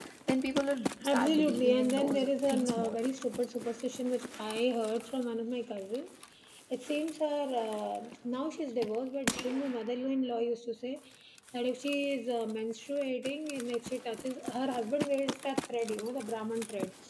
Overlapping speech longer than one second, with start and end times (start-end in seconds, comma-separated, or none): 1.0-3.0